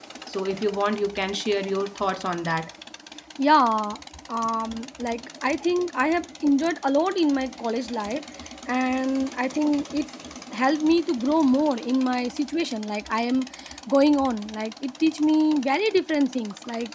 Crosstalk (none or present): none